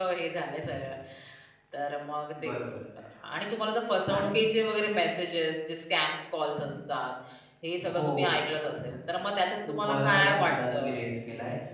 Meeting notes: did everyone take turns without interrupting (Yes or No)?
No